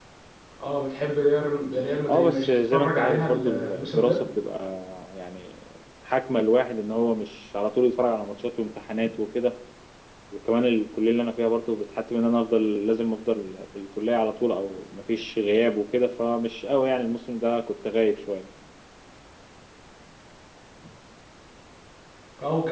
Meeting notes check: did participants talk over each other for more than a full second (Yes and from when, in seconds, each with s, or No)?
Yes, from 2.0 s